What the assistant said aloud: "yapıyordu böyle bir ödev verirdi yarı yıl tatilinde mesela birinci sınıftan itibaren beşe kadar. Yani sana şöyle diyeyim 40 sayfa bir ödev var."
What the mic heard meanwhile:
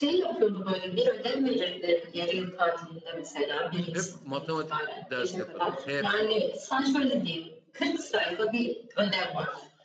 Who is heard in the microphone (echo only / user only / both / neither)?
both